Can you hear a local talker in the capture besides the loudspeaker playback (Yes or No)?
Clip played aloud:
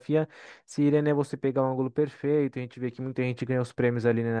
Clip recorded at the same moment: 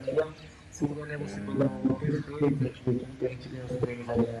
Yes